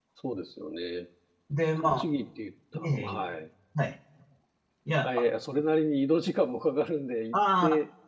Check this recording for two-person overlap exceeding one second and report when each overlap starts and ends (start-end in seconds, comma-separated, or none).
none